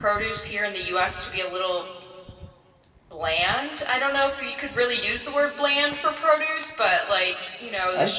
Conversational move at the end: listening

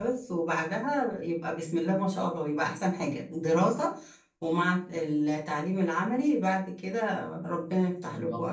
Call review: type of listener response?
taking over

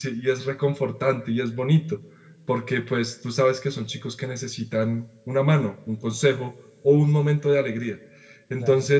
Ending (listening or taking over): listening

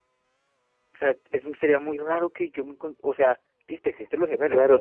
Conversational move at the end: taking over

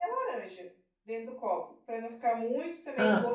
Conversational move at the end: listening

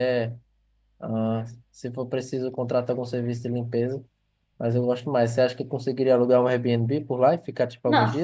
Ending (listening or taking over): taking over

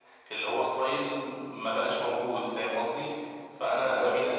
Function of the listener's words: taking over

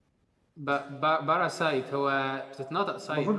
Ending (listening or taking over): taking over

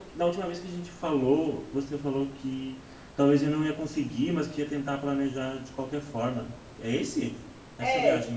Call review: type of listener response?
taking over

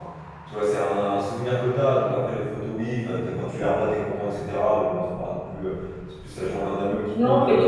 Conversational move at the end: taking over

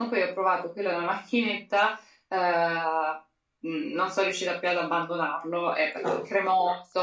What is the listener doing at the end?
listening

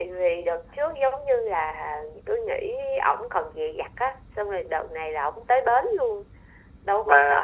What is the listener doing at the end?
taking over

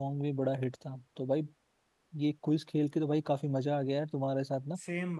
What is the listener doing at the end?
listening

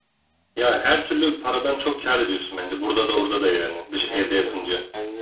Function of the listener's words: taking over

